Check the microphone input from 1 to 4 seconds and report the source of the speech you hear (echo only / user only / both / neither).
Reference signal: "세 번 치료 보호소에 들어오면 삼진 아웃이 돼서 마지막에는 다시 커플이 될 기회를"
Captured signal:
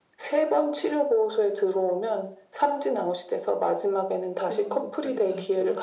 echo only